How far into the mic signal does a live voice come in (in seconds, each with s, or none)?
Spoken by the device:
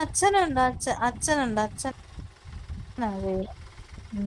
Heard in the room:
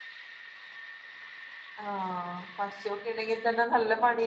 1.8 s